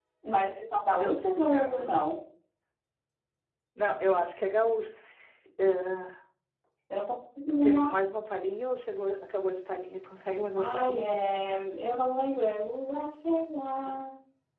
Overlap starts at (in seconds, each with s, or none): 1.0 s